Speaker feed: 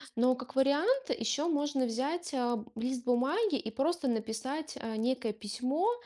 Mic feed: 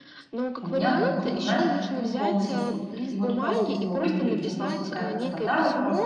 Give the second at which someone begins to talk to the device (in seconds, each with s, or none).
0.6 s